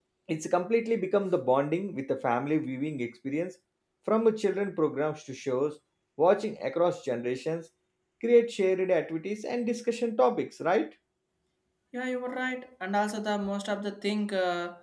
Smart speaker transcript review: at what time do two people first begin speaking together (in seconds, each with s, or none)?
none